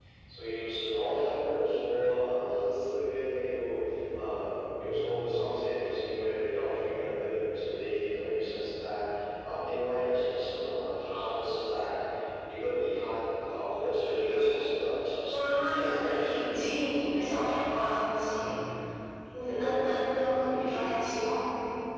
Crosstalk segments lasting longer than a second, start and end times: 15.3-16.6

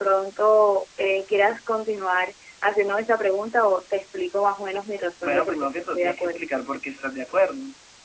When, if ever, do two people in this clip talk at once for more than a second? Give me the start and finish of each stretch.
5.2-6.5

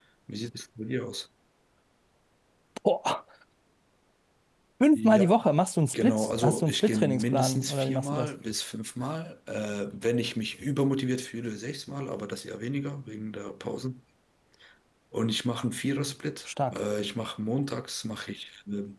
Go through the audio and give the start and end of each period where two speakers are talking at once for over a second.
5.9-8.3

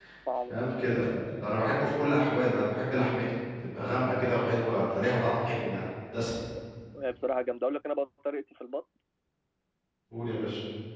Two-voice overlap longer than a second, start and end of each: none

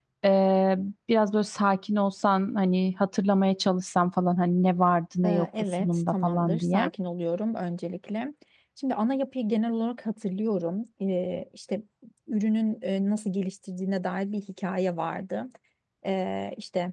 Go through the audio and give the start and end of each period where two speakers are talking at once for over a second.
5.2-6.9

